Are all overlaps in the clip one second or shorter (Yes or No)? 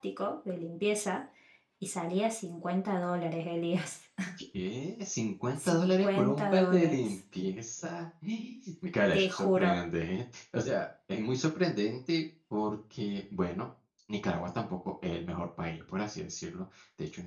No